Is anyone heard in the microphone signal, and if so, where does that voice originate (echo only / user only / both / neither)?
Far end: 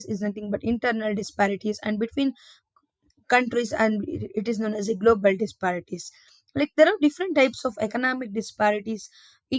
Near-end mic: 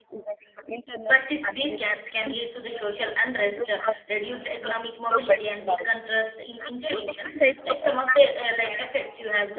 both